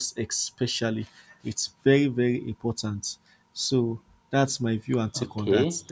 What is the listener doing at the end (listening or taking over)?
taking over